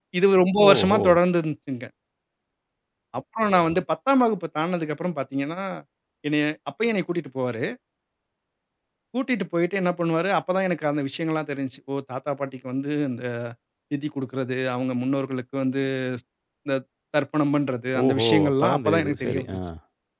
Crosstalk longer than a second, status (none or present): present